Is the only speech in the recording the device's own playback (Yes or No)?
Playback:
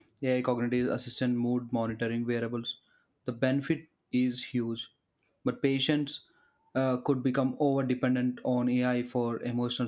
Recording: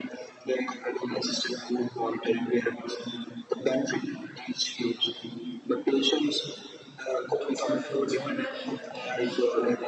No